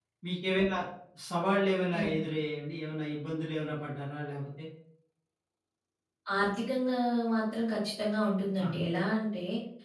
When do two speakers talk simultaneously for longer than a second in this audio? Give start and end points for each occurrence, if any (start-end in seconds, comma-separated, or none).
none